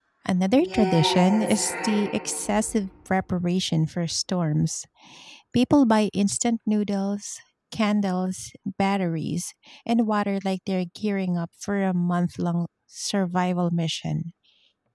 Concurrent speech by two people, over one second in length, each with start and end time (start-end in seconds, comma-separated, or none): 0.5-2.0